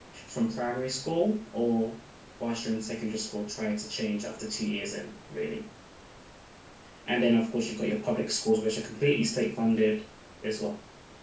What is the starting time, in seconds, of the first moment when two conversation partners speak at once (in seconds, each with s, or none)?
none